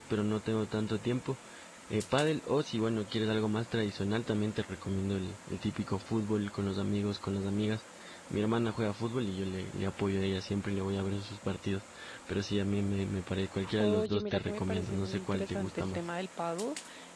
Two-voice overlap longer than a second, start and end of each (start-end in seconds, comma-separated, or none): 13.8-16.0